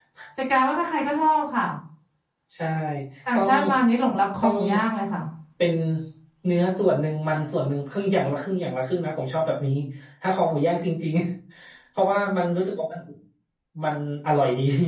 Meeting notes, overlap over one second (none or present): none